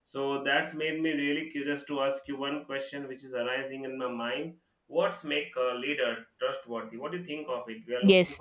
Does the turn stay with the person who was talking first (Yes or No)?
No